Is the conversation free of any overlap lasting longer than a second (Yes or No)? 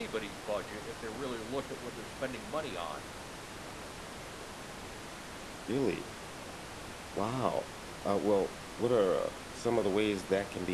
Yes